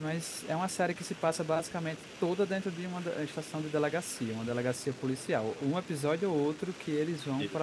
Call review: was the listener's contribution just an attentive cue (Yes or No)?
Yes